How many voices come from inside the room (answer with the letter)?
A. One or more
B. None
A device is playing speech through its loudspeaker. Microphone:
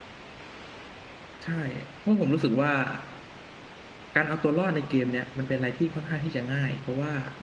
A